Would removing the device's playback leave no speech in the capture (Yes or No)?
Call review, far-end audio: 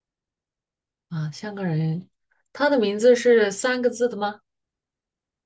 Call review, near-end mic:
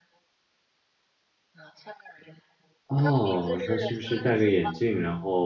No